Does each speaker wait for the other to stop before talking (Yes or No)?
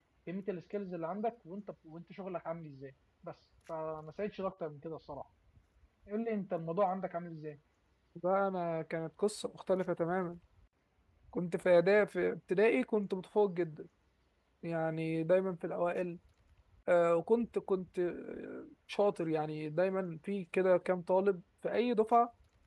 Yes